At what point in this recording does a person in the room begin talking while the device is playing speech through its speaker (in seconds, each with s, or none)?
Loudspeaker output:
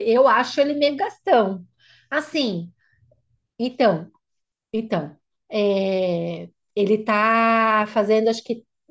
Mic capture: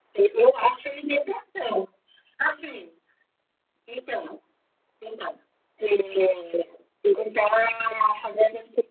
none